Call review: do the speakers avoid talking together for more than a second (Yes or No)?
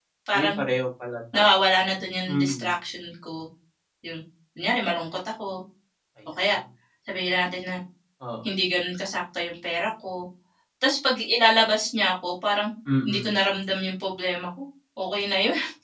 Yes